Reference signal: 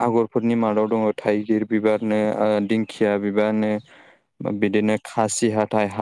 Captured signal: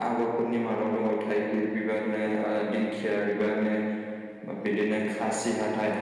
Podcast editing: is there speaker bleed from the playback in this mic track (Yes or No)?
Yes